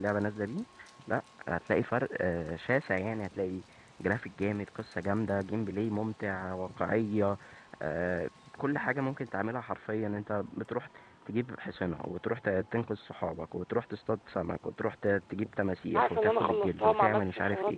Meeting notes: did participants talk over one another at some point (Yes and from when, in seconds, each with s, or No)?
Yes, from 15.9 s